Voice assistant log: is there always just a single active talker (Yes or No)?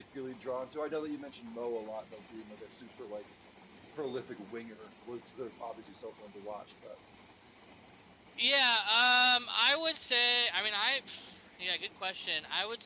Yes